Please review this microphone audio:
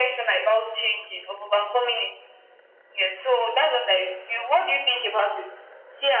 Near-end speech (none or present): none